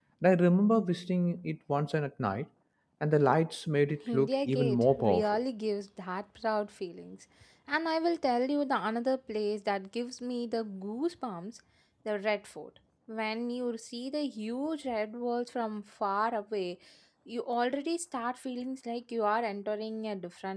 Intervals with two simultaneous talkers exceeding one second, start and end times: 4.1-5.4

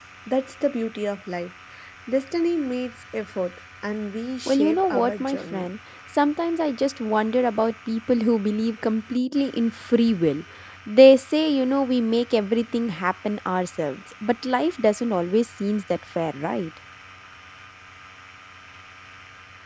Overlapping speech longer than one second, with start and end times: 4.5-5.7

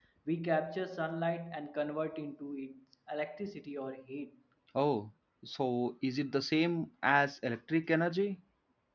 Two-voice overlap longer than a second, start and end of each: none

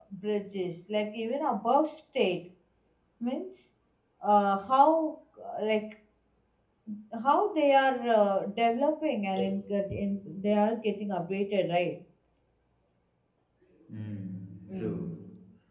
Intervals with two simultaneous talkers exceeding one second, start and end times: none

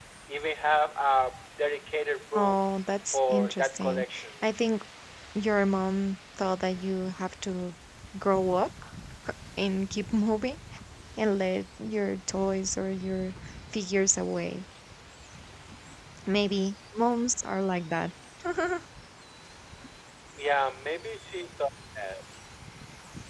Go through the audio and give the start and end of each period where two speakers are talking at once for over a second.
3.1-4.5

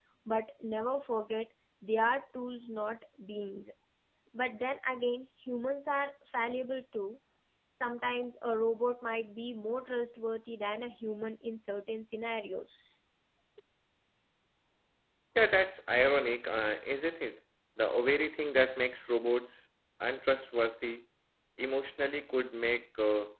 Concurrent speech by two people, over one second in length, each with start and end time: none

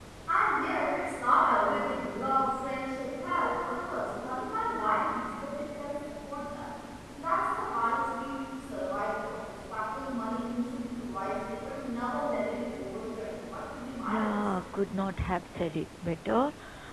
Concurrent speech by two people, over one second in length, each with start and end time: none

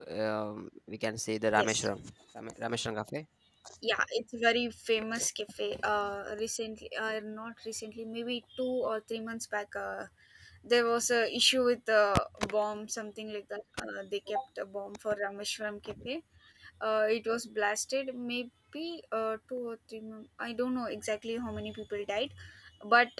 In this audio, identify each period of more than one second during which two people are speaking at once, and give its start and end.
none

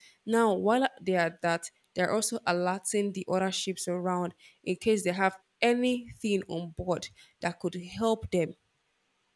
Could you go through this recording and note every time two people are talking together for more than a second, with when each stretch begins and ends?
none

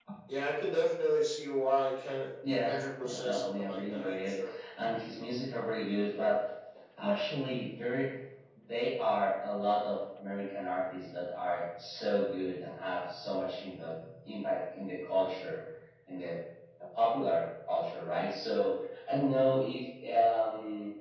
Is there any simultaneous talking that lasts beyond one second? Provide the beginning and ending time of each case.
2.6-4.5

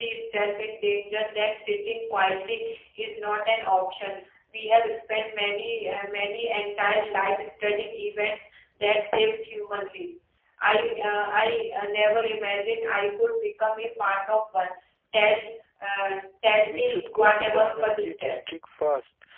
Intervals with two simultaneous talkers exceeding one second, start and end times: 16.6-18.4

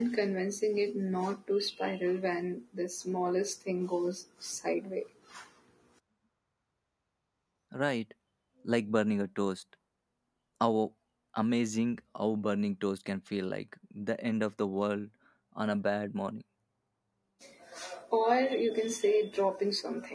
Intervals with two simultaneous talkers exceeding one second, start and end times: none

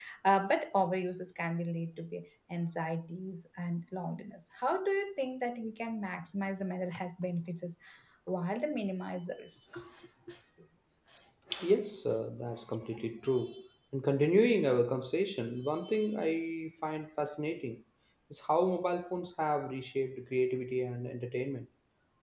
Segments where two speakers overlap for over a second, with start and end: none

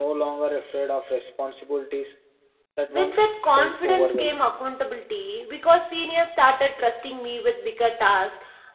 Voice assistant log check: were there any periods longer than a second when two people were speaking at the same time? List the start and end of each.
2.9-4.5

